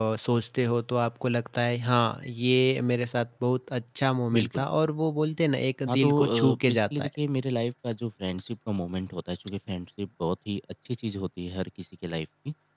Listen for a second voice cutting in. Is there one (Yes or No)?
Yes